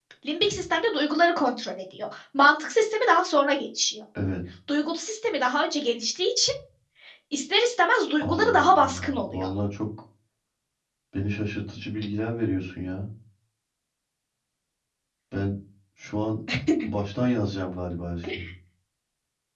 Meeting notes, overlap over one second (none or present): present